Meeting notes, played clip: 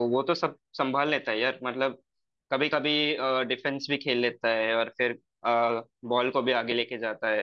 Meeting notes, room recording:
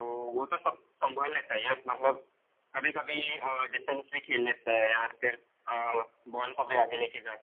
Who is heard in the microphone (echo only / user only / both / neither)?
echo only